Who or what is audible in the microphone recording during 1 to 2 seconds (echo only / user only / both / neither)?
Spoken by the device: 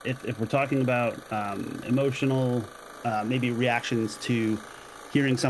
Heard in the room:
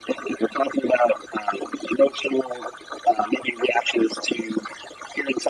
echo only